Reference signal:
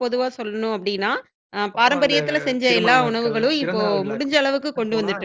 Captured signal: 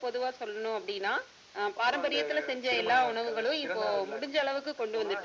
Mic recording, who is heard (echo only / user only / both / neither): echo only